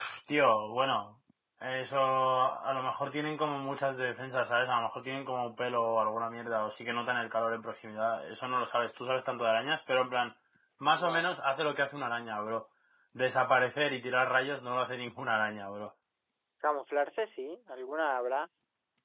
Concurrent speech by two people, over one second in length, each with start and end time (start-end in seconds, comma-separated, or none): none